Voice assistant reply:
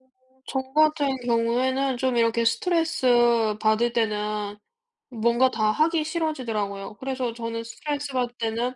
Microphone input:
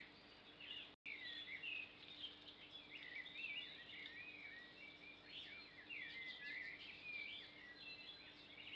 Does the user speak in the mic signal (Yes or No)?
No